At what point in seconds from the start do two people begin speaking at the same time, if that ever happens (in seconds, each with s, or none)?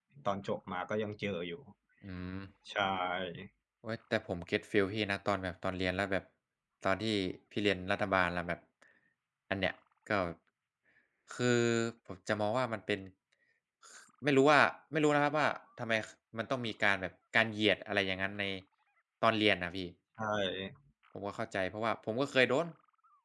none